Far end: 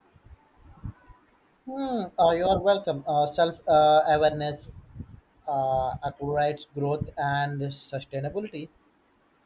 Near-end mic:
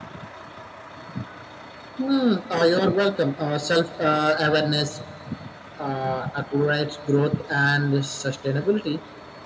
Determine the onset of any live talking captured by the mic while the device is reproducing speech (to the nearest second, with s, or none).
none